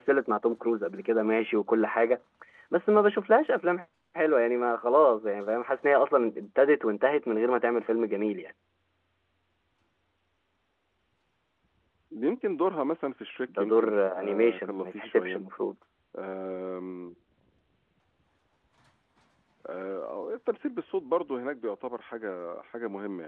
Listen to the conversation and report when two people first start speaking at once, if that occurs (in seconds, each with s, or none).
13.5 s